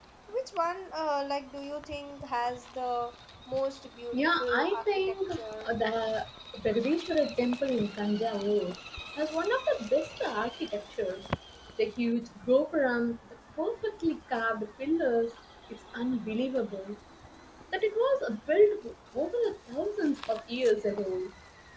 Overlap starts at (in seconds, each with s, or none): 4.1 s